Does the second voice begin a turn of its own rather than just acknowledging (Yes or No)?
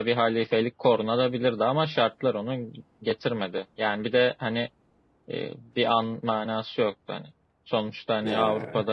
No